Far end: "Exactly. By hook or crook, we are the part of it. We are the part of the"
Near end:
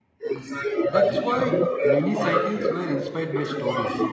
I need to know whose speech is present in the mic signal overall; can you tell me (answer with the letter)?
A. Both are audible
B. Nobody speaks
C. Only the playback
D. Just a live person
A